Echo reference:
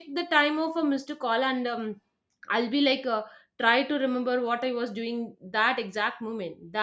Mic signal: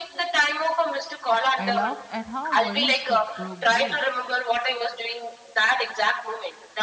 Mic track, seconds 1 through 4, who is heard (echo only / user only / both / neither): both